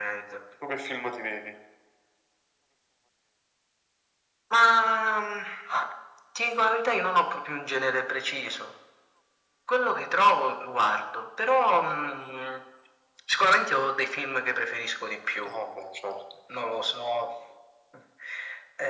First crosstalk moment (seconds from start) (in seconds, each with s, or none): none